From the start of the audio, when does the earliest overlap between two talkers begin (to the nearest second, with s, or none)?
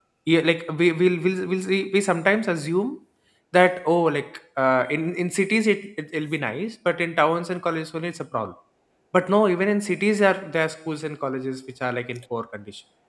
none